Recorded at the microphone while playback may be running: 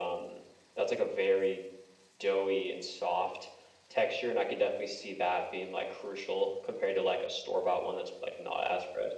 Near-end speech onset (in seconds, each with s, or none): none